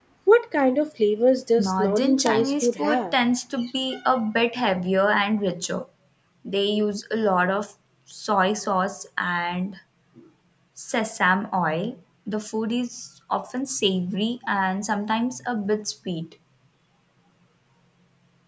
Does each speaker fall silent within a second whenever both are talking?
No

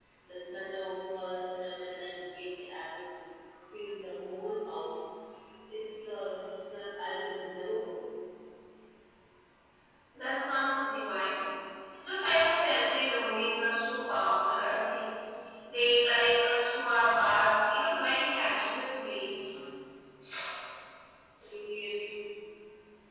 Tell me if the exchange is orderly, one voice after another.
Yes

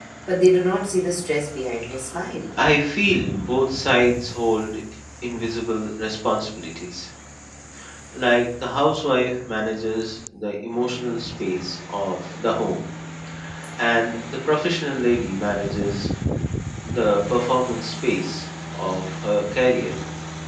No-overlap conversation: Yes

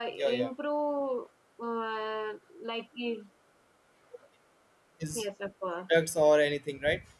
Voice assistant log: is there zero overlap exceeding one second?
Yes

